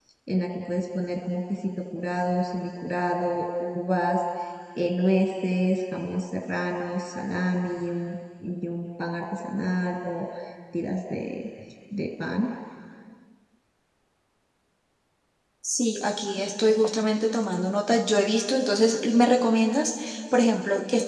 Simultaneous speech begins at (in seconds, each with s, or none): none